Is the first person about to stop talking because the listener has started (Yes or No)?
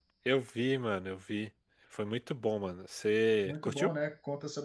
Yes